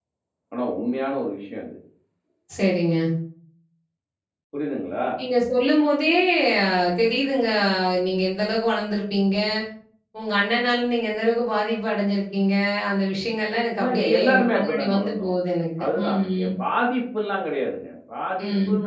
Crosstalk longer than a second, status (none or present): present